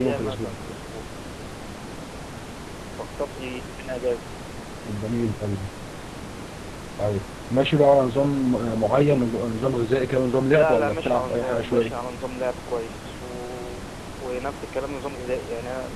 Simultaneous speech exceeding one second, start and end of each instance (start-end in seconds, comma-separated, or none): 10.5-11.9